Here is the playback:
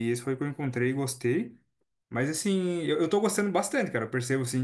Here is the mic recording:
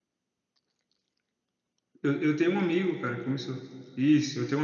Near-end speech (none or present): present